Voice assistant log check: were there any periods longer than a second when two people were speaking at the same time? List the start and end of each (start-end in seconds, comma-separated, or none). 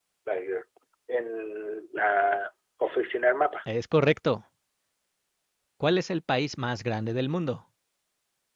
none